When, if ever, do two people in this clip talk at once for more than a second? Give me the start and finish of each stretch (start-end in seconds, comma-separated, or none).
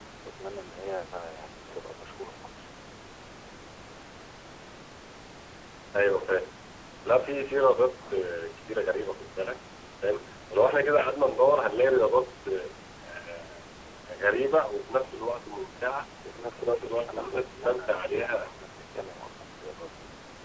16.6-18.4